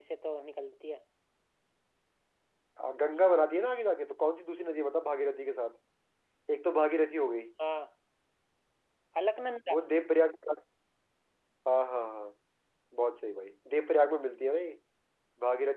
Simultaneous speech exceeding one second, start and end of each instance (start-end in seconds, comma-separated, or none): none